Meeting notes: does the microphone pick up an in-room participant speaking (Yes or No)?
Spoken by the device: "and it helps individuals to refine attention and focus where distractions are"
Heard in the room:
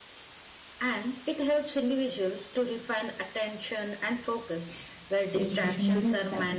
Yes